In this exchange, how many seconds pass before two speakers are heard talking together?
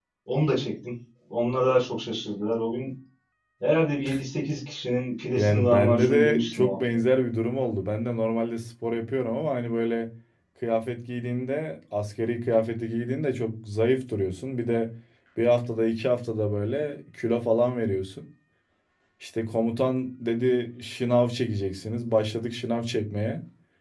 5.4 s

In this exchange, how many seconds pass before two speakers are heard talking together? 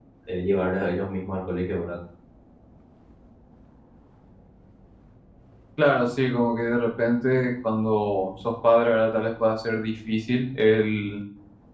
none

